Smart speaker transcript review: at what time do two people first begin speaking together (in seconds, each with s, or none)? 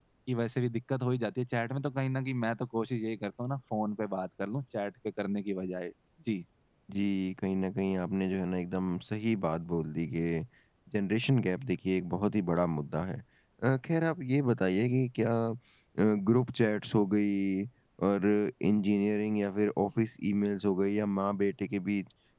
none